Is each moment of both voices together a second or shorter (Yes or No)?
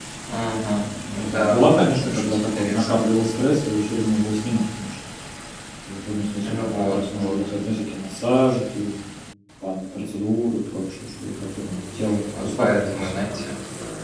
No